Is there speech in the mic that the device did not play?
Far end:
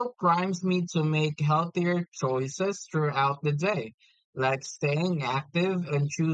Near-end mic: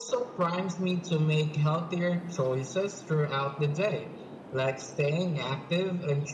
No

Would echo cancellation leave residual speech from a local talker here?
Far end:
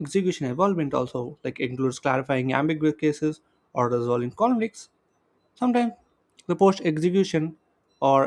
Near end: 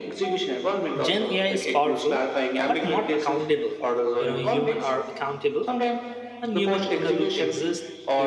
Yes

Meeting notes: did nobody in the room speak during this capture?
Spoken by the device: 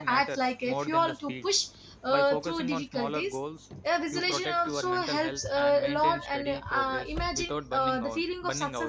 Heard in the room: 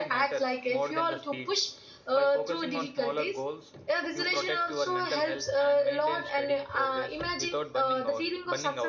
Yes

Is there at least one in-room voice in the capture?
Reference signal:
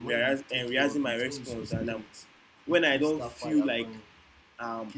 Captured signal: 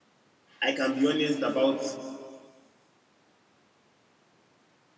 Yes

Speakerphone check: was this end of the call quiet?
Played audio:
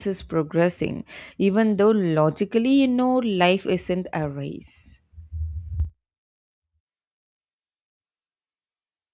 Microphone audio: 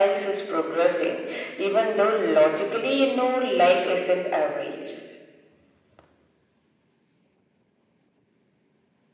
Yes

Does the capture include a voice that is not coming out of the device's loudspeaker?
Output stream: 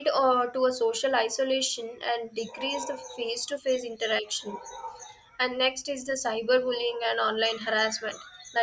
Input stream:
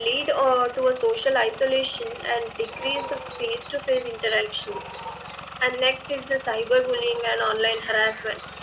No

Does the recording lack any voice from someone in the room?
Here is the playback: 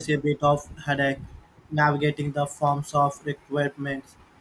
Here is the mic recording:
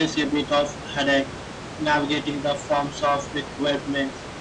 Yes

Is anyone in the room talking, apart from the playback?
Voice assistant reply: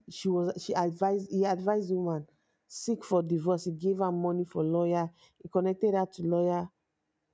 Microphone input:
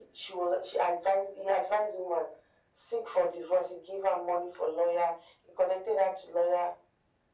No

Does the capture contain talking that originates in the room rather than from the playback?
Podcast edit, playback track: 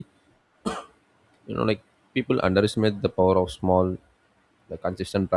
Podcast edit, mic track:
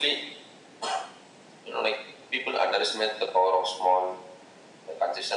No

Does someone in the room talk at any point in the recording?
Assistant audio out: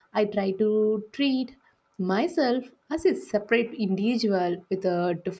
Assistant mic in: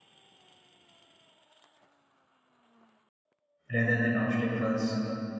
Yes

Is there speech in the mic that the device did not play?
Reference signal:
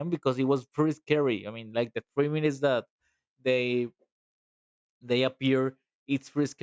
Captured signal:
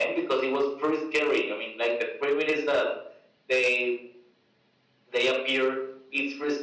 No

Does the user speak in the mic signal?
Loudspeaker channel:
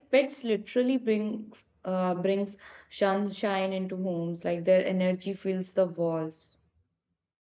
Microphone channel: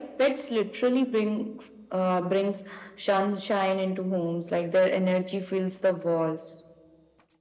No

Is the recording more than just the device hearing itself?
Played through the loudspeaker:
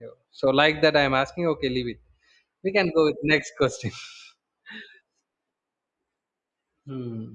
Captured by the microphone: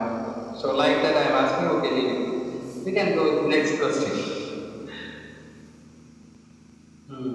No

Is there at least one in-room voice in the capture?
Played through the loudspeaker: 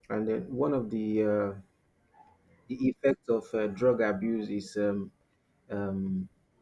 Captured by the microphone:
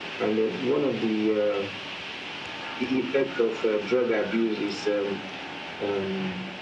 No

